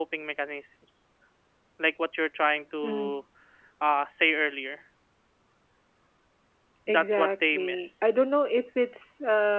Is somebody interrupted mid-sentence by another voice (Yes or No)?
Yes